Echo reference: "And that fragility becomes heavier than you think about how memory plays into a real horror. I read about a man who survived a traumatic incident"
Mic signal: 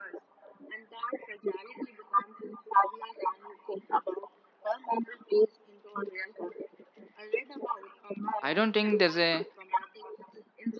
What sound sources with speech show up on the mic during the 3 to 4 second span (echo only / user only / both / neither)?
echo only